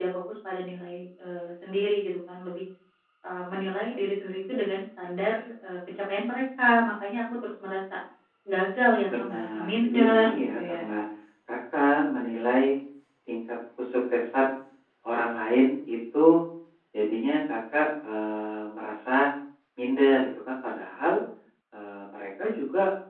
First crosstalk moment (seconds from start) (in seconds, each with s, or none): 9.0 s